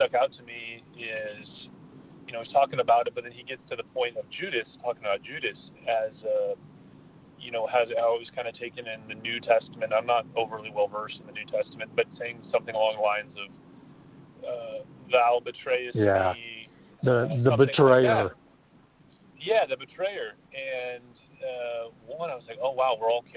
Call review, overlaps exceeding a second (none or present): present